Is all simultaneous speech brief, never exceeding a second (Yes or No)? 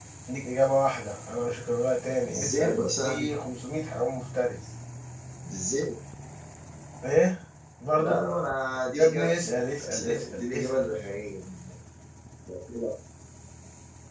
No